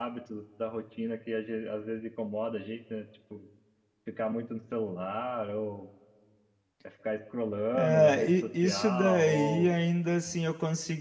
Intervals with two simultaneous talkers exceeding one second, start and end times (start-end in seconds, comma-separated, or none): 7.7-9.7